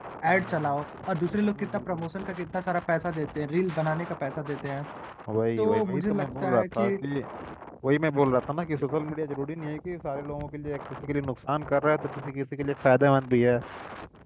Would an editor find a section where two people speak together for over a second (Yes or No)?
Yes